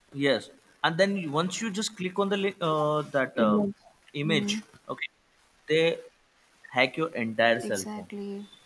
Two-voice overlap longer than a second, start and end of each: none

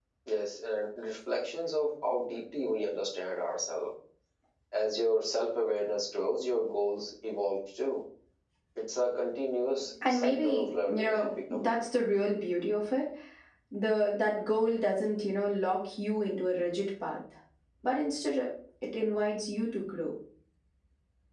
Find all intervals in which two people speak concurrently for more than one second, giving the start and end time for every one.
10.1-11.8

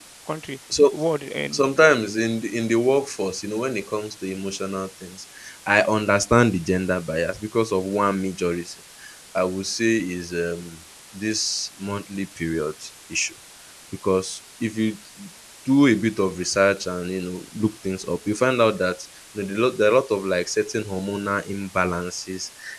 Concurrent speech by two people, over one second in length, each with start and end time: none

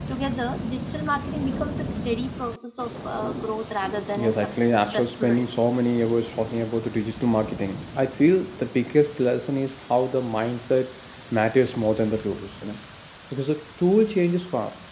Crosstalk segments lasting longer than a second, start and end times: 4.2-5.7

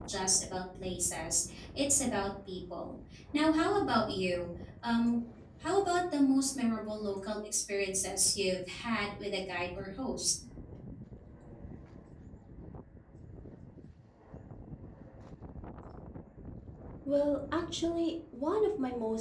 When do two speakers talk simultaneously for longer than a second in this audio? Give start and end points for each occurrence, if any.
none

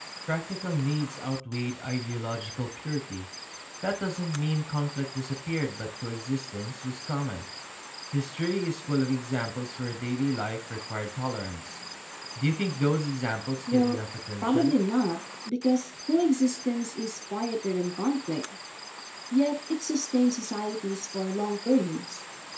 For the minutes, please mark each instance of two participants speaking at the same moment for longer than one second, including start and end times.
none

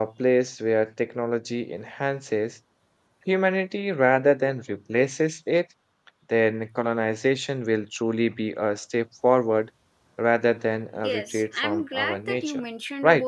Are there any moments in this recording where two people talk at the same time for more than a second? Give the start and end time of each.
11.0-12.6

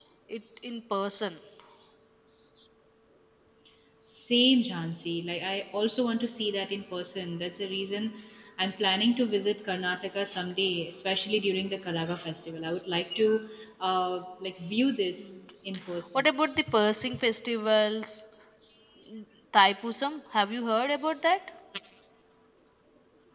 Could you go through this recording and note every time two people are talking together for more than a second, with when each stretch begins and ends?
none

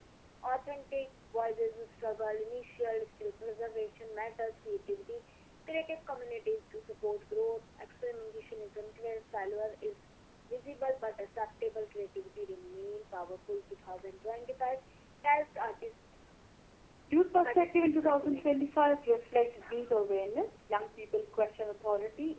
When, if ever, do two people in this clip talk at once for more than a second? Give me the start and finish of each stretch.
17.4-18.7

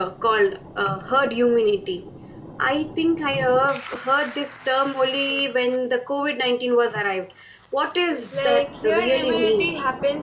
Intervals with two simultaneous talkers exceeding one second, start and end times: 8.3-9.7

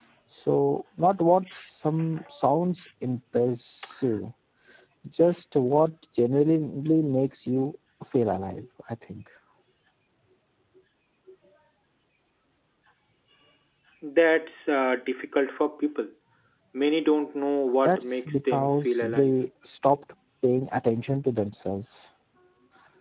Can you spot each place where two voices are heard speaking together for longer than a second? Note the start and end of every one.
17.8-19.3

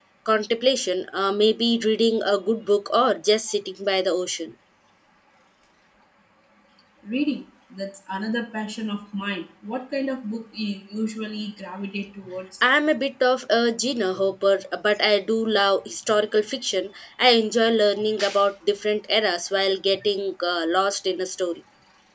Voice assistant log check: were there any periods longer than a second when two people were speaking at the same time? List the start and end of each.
none

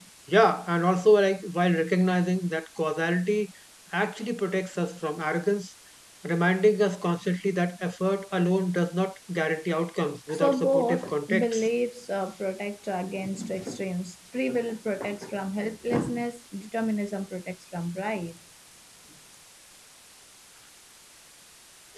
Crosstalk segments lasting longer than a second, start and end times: 10.3-11.7

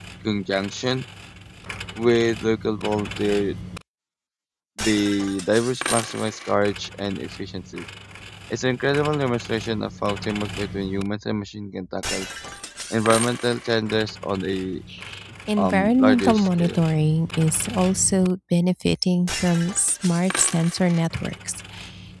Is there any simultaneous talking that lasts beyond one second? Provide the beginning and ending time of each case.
15.6-16.8

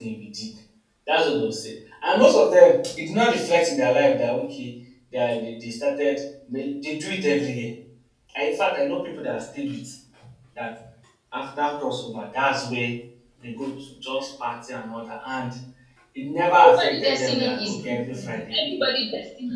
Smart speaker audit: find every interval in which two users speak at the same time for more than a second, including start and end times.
16.6-18.8

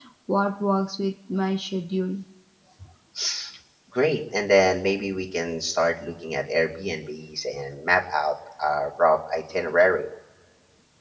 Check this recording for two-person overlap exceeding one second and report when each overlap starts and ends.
none

